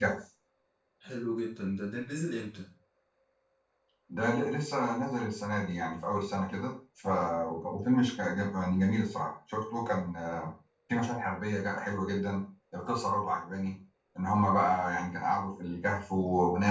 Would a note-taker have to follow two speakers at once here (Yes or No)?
No